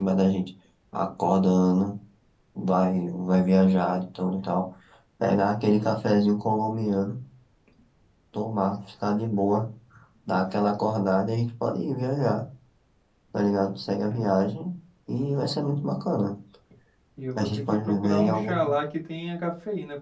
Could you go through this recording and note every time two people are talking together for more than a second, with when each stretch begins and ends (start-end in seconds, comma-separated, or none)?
17.4-18.7